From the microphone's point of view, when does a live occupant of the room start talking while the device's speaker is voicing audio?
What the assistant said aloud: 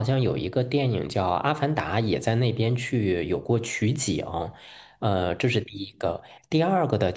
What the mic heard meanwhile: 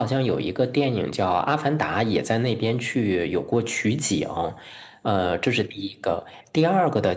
none

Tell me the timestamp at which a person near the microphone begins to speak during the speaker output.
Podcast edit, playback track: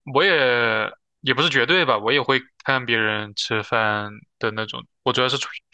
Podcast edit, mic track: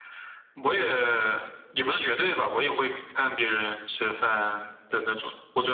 none

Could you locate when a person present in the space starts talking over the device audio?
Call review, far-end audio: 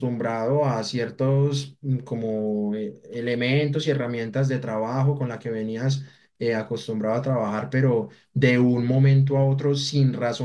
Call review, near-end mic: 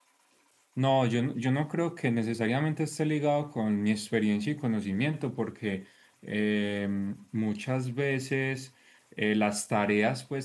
1 s

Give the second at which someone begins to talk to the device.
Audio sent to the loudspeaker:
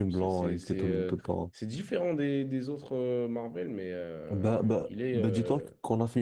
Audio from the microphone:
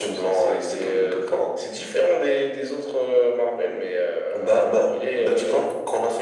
none

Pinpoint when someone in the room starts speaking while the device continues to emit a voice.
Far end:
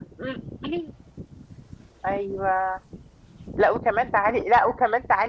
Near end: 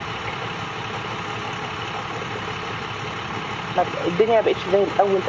4 s

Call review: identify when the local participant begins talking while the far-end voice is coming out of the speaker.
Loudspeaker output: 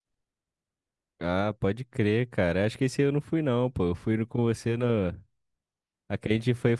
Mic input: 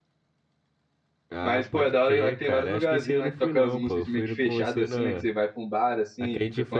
1 s

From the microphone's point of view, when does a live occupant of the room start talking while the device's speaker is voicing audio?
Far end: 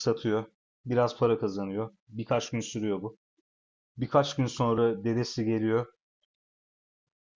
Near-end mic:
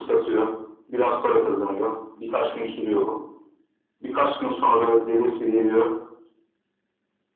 none

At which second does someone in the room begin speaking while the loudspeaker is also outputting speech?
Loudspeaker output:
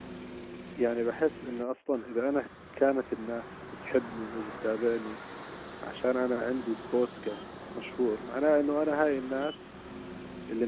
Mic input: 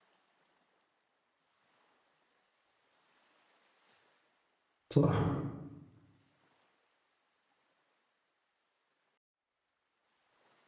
5 s

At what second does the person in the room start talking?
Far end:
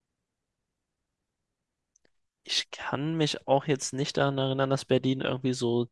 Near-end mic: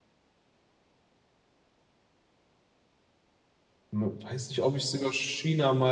4 s

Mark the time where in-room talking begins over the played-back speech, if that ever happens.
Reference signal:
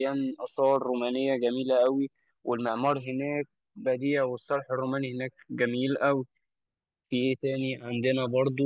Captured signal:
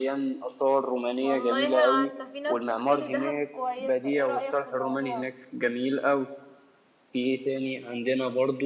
1 s

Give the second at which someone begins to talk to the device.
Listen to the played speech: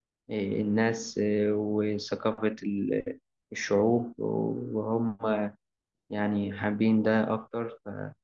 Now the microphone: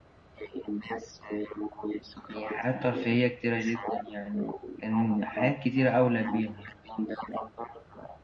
2 s

